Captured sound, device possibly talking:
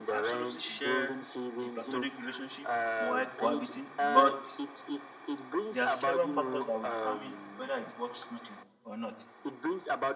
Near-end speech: present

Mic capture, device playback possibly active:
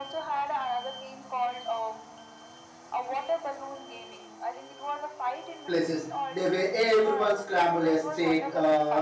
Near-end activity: present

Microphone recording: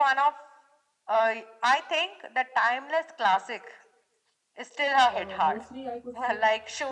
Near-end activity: present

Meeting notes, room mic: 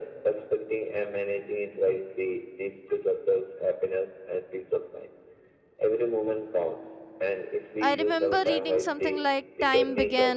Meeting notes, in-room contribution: present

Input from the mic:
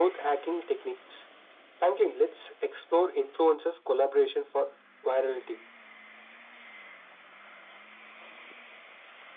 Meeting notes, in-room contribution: none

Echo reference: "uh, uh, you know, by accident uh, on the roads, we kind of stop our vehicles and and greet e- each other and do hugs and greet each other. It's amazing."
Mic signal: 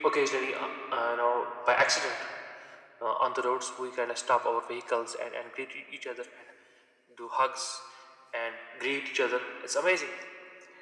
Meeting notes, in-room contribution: none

